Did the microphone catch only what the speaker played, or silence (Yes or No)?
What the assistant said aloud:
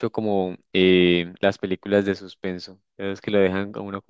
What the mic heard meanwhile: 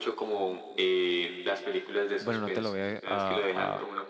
No